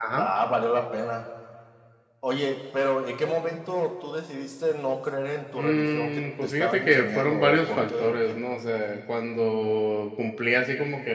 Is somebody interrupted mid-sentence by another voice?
Yes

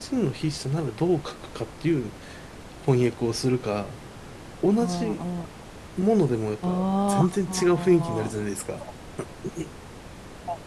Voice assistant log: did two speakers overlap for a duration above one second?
Yes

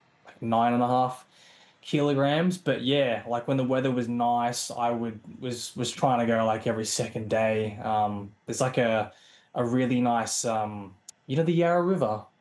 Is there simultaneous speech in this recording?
No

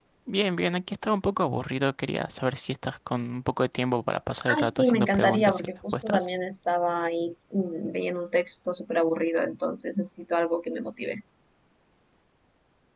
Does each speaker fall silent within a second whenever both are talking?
No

